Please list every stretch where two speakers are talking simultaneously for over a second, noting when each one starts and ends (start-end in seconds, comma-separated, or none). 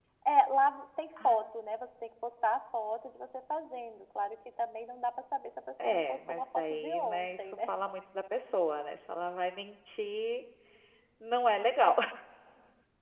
5.8-7.7